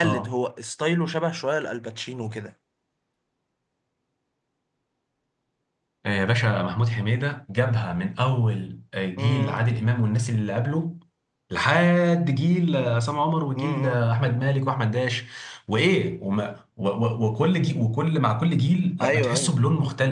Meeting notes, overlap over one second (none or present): none